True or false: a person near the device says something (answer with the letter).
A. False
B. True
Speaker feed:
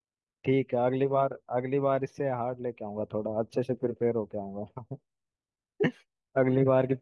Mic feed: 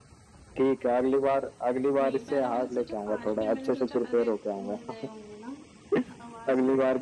B